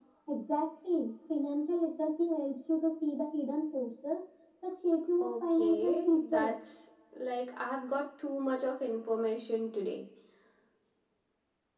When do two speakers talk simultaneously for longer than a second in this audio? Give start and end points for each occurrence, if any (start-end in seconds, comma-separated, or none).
5.2-6.5